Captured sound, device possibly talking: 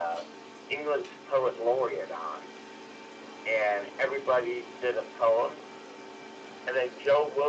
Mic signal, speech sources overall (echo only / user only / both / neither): echo only